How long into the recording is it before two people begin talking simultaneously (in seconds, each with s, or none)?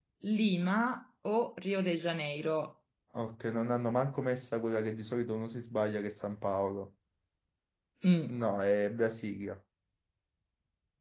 none